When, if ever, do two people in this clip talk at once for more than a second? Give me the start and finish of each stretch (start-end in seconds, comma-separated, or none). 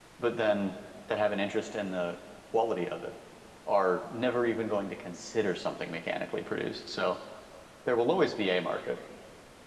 none